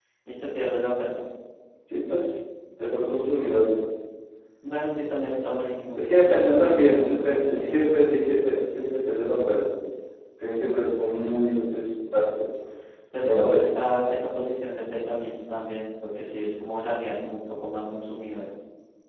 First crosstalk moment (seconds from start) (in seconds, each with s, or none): 6.0 s